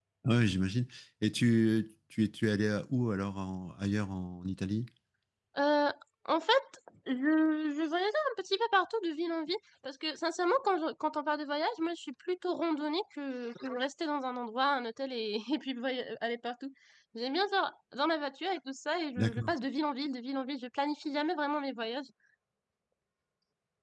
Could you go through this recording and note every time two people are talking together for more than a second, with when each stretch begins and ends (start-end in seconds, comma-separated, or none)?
none